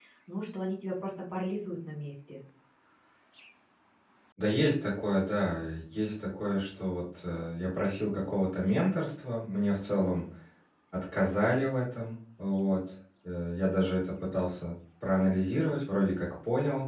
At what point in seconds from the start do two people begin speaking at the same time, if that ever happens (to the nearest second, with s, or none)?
none